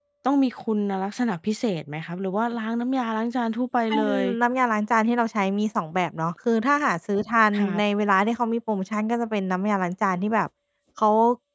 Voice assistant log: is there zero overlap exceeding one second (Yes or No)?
Yes